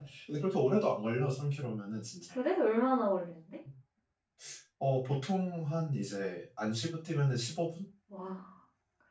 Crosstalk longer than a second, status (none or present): none